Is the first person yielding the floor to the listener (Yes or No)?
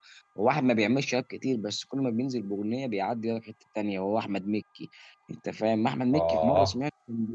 No